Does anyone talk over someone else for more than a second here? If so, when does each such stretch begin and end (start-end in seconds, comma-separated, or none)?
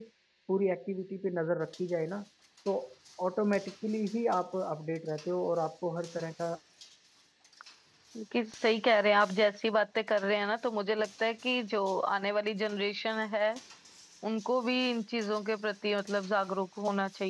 none